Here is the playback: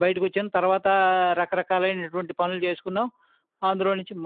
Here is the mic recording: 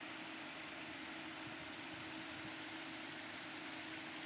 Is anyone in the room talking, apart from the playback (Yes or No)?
No